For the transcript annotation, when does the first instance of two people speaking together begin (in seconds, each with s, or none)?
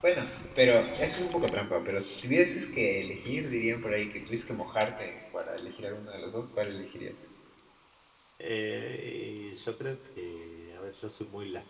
none